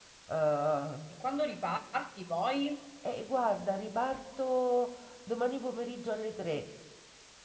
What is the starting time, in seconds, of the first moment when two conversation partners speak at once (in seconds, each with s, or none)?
none